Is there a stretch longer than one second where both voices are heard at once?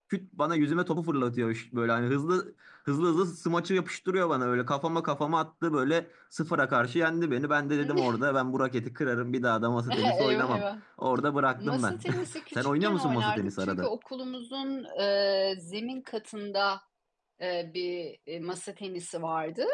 Yes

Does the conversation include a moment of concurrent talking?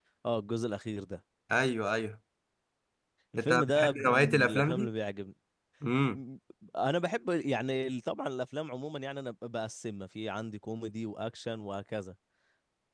Yes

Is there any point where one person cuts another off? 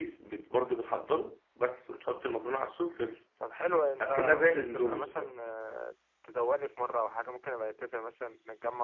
Yes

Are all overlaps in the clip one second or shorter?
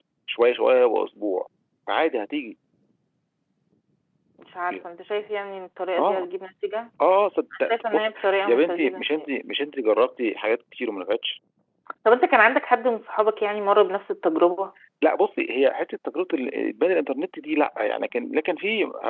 No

